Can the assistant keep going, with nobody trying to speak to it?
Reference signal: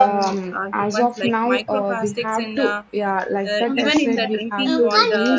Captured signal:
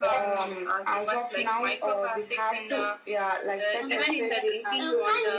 Yes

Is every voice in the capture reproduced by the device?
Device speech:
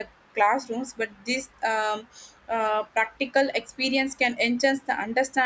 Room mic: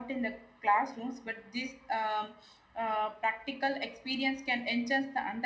Yes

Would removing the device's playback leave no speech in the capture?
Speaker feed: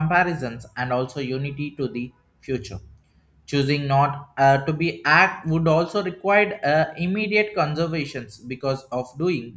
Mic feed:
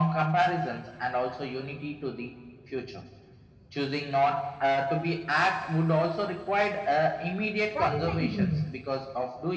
No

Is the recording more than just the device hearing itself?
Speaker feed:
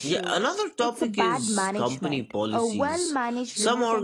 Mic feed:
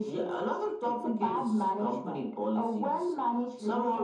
No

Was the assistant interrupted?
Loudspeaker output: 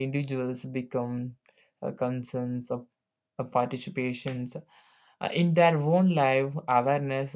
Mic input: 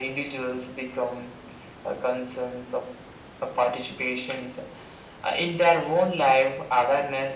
No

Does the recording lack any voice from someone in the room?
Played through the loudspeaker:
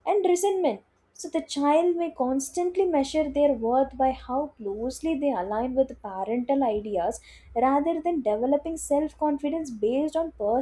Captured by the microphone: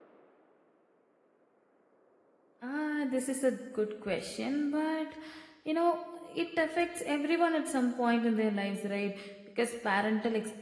No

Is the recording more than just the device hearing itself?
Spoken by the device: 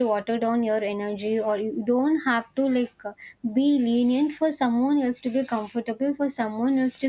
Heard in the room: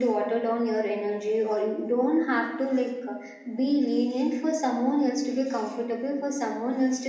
No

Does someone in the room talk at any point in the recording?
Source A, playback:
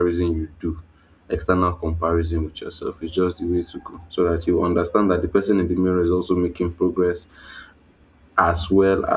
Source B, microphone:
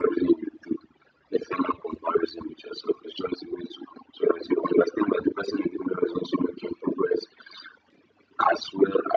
No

